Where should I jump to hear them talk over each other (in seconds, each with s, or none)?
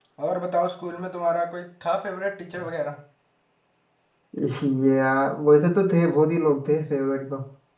none